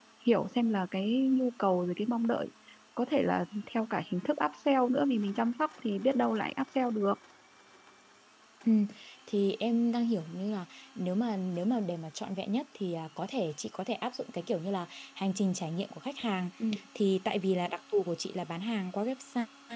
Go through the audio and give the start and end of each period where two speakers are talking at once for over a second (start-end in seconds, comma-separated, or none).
none